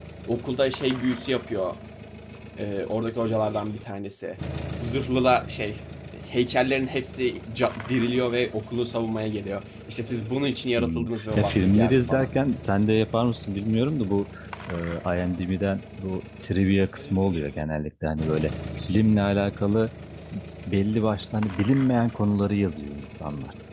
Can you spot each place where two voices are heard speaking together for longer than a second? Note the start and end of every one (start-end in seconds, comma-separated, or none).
10.8-12.3